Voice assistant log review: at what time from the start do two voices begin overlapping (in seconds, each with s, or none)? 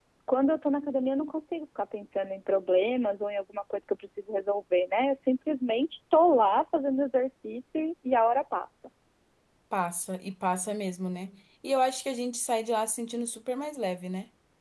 none